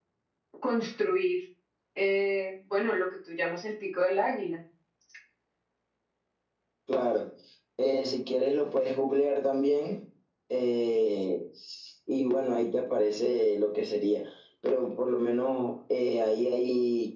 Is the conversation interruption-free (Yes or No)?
Yes